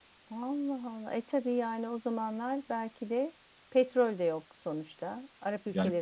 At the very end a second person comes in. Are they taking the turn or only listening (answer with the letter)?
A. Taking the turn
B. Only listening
A